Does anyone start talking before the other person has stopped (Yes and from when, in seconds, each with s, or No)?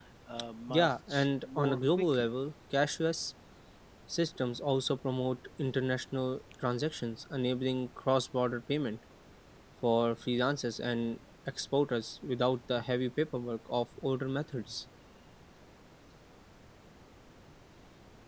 Yes, from 0.7 s